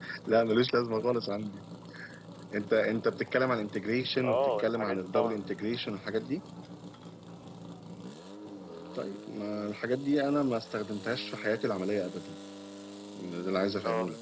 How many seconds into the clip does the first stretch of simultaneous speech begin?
4 s

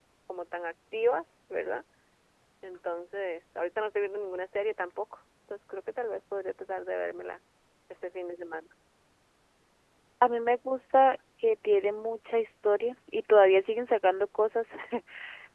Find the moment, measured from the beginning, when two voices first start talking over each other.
none

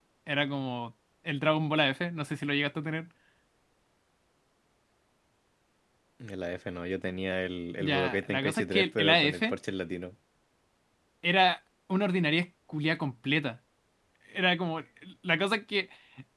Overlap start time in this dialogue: 8 s

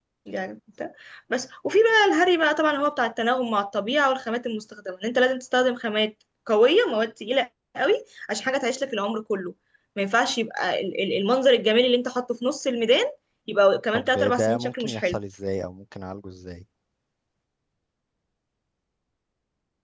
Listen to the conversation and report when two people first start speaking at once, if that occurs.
14 s

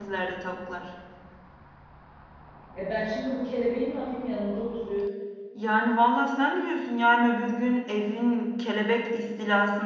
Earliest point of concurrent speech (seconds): none

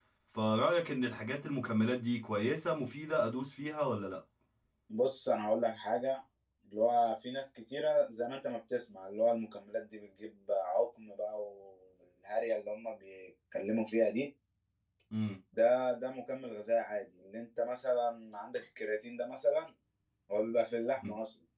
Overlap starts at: none

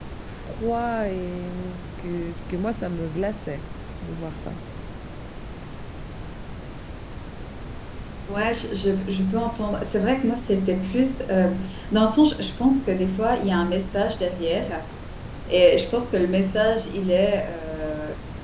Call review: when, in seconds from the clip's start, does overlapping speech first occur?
none

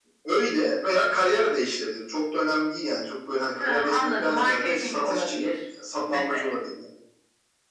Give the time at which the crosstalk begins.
4 s

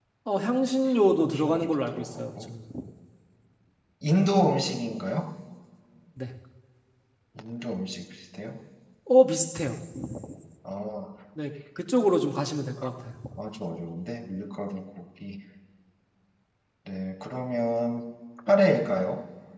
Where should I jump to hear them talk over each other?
1 s

